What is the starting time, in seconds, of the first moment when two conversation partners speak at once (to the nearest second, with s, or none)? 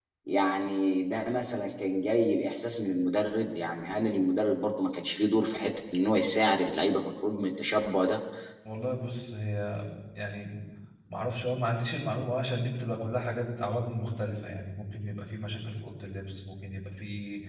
none